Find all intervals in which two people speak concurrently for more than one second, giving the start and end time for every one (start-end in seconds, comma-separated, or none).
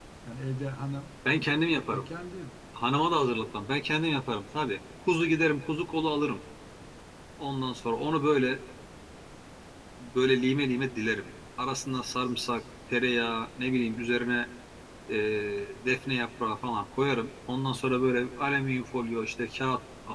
none